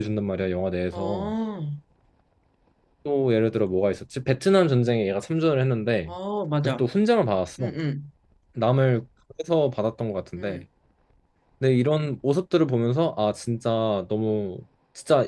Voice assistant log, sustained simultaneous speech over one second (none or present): none